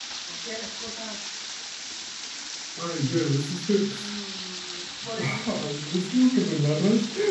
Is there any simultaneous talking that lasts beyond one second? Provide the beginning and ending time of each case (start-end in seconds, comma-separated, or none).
none